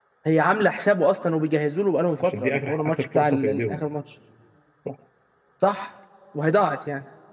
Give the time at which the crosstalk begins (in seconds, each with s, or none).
2.2 s